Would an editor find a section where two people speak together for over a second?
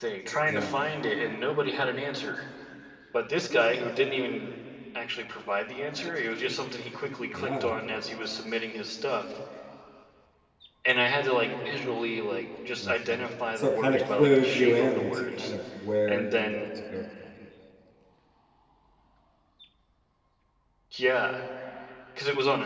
Yes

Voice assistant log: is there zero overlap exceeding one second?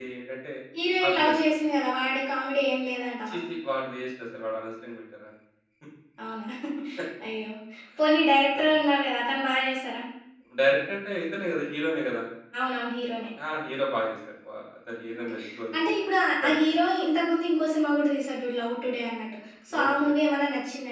Yes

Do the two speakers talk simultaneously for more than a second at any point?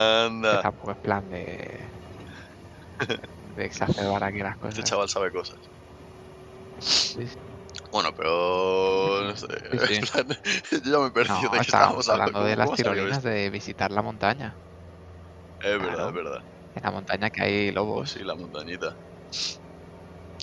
Yes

